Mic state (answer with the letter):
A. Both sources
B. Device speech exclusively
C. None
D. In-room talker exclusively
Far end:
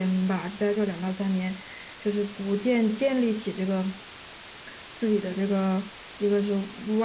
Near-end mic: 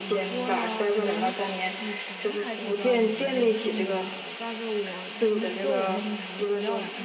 A